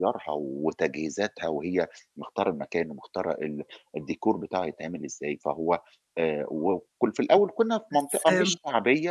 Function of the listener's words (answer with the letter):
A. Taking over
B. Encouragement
B